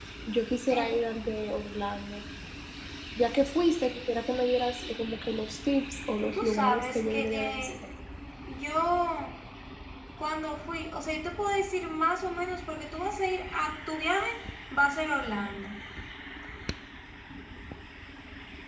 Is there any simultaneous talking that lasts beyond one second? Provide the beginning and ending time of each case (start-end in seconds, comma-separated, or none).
6.3-7.7